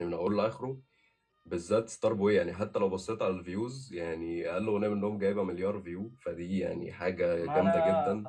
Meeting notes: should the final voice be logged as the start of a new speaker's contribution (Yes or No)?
Yes